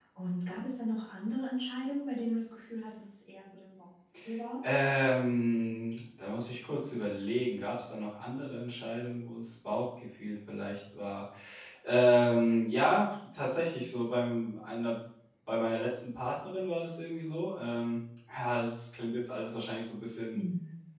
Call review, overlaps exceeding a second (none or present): none